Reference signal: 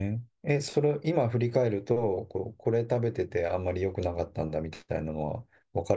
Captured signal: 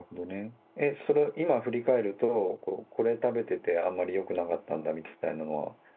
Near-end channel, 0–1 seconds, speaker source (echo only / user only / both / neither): echo only